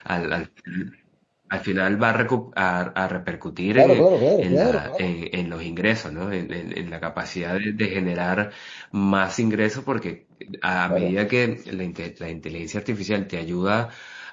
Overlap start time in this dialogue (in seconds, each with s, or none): 3.8 s